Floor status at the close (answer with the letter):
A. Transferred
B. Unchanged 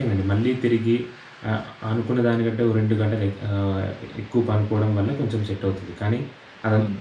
B